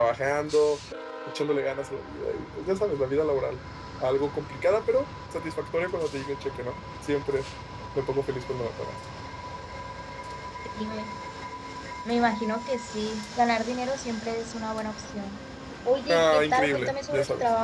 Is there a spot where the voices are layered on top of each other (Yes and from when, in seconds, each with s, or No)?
Yes, from 16.1 s